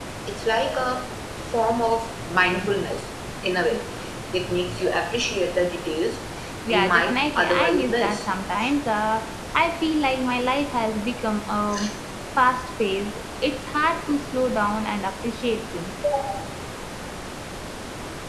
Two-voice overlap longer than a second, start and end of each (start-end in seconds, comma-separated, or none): 6.7-8.3